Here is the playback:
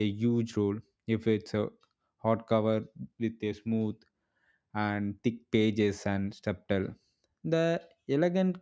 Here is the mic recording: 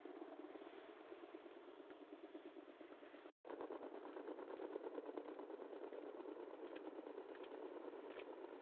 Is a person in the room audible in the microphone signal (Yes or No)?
No